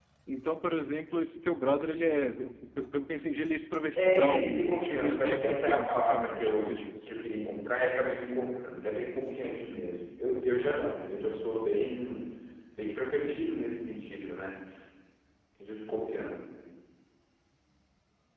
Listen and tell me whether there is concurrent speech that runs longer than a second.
Yes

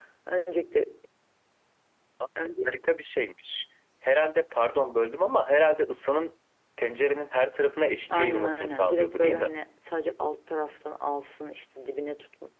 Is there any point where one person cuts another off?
Yes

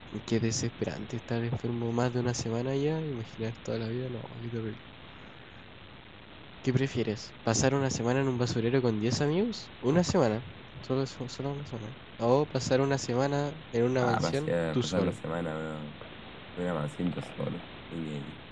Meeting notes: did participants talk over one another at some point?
Yes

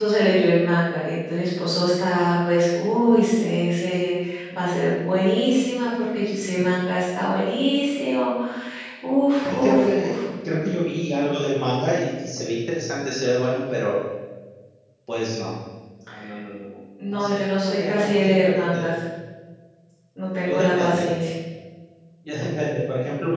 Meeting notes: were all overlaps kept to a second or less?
No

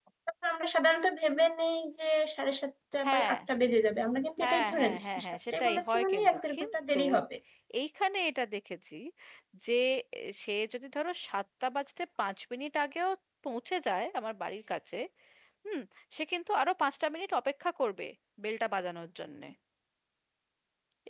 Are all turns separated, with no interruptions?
No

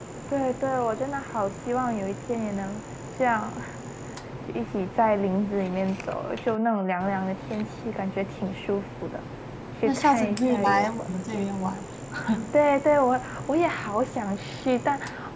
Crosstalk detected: Yes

